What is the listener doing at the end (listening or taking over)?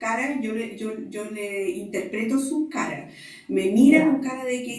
listening